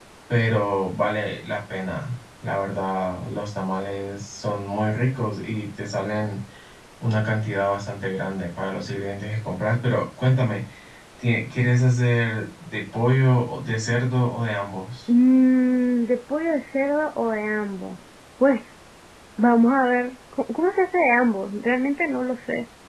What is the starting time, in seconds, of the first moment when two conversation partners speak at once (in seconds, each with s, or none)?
none